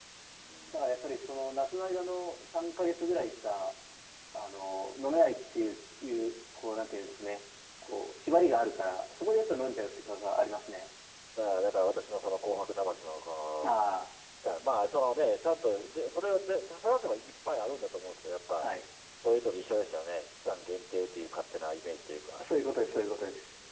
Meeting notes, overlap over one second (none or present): none